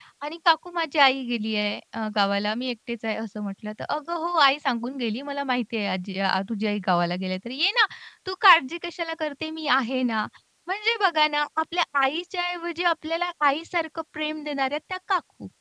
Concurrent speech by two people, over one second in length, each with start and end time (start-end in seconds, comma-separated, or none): none